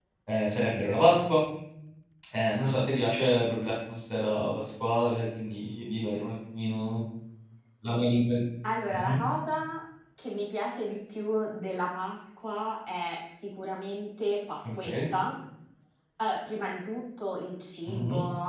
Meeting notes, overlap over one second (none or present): none